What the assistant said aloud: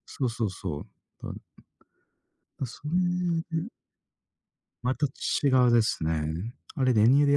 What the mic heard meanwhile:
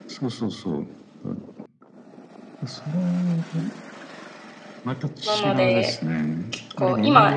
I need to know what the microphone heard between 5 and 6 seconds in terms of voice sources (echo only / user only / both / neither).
both